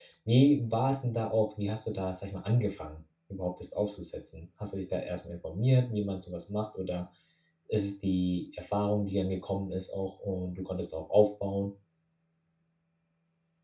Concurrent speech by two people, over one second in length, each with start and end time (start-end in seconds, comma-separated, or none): none